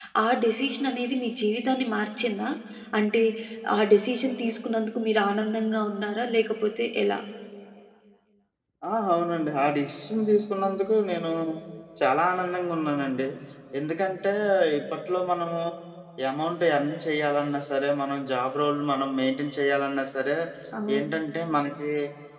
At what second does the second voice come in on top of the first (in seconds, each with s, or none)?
none